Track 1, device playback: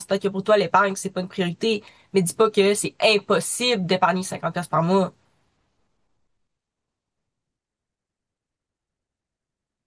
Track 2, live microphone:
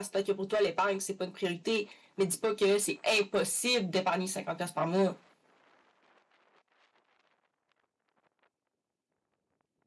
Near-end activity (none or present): none